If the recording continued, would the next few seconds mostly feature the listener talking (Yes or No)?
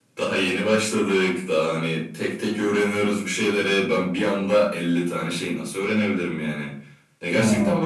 No